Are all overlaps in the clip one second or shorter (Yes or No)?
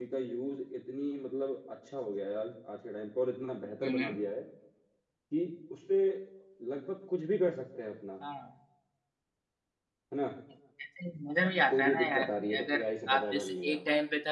No